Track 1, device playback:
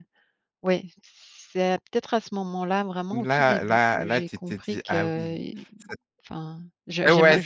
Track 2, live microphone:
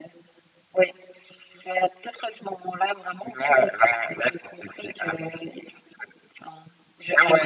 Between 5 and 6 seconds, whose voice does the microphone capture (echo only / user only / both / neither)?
echo only